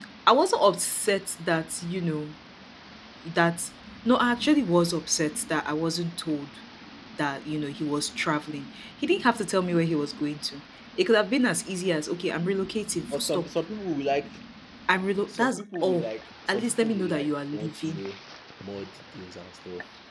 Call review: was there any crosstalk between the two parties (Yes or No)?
Yes